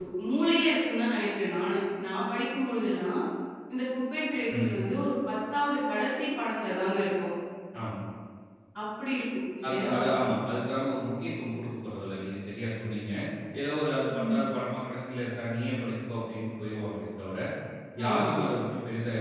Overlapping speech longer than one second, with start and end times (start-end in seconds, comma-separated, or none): none